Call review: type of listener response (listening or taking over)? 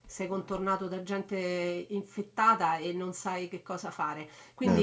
listening